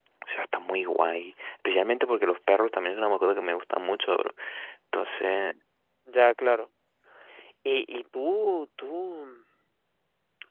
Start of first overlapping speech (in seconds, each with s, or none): none